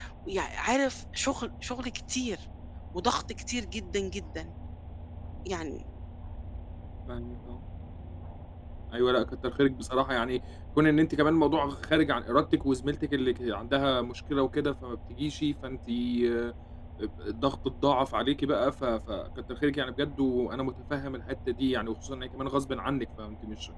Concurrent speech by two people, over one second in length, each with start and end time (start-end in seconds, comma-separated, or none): none